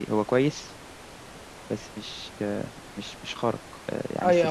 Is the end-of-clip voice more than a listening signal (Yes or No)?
Yes